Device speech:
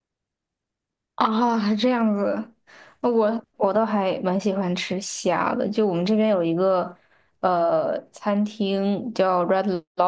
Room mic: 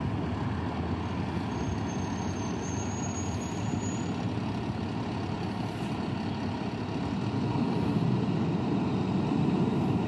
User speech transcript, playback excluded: none

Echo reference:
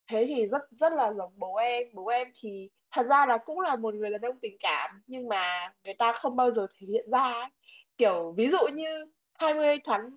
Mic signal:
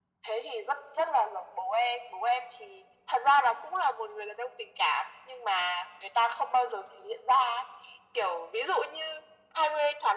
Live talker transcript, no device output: none

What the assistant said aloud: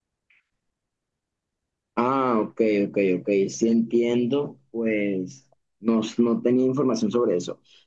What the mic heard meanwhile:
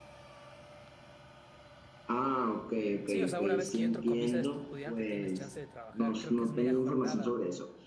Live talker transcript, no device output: Sí, o sea, una vez que yo entro con visa de estudiante tienes chance de trabajar. Creo que es media jornada

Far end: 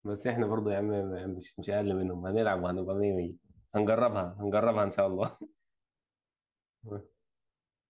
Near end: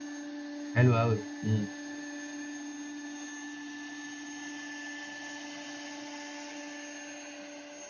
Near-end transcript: حلو قوي امم

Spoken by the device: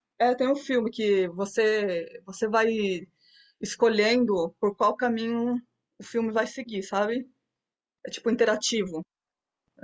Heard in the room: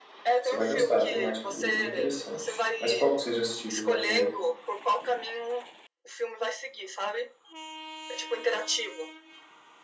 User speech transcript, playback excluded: você vai gostar, a temática dele é bem interessante. Mas qual que você já assistiu de Black Mirror?

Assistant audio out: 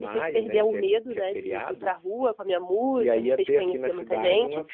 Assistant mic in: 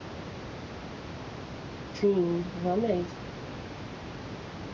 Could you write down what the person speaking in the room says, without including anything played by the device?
sim, realmente.

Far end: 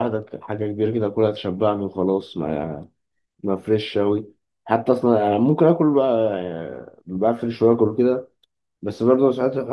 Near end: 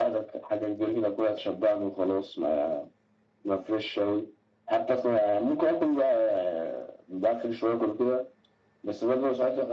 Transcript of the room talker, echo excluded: none

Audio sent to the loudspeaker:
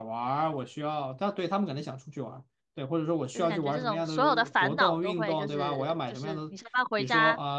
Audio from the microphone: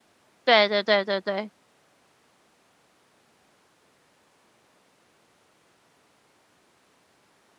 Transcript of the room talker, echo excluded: 对对对对对，

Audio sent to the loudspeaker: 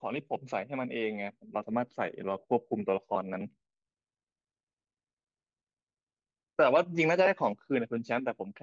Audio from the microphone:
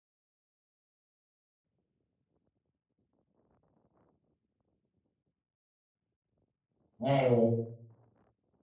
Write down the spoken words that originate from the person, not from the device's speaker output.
ไม่โอ้

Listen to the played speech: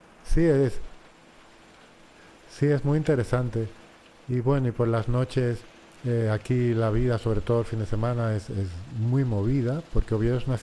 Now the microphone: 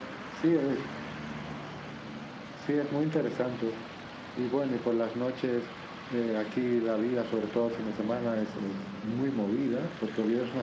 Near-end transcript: none

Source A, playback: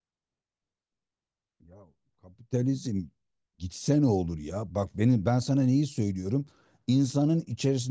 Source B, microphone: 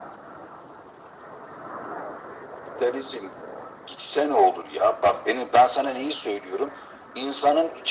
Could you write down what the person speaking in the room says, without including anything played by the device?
none

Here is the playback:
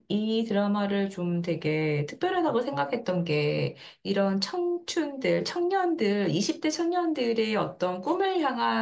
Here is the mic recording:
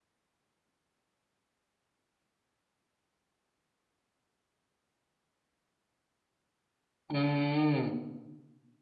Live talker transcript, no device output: 음,

